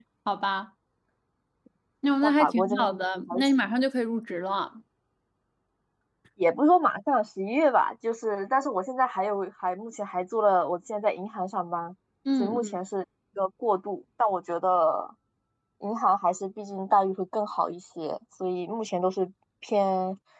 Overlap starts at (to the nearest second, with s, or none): 2 s